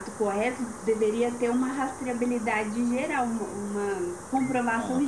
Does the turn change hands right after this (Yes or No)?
No